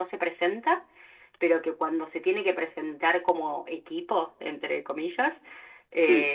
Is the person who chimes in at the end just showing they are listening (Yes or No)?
Yes